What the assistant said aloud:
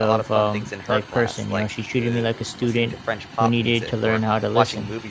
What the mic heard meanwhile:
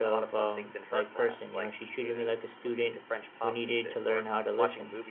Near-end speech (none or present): none